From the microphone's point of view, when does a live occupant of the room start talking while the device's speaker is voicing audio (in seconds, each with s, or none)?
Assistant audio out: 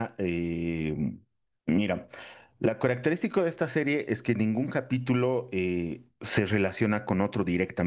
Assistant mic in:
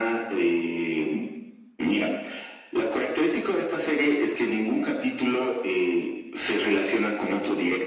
none